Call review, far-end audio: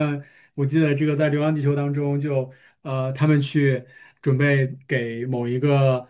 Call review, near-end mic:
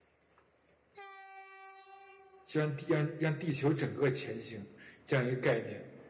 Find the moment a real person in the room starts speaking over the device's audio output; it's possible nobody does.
2 s

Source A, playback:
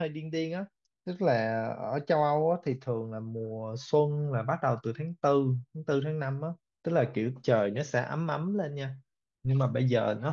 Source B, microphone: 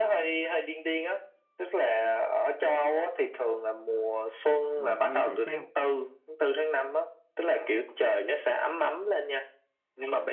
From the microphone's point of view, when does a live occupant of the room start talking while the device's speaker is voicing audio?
5 s

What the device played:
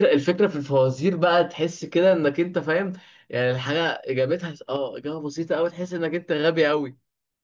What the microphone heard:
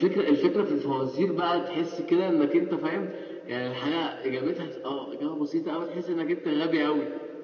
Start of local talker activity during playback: none

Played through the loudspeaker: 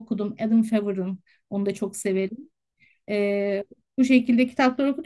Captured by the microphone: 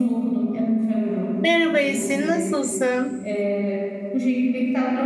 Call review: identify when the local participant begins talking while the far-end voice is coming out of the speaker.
1 s

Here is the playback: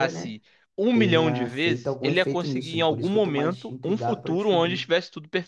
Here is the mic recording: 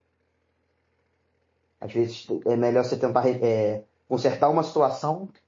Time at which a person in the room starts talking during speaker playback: 2 s

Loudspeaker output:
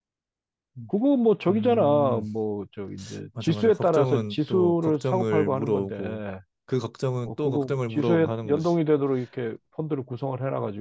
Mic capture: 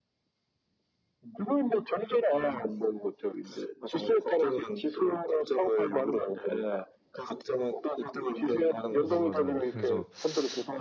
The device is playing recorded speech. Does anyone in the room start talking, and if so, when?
9 s

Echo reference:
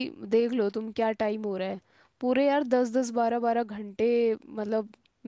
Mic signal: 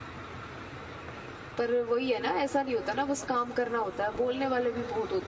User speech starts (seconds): 2 s

